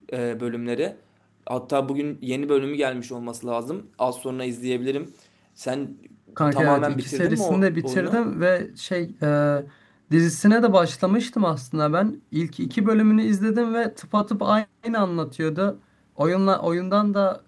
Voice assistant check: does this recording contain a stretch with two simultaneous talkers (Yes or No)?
Yes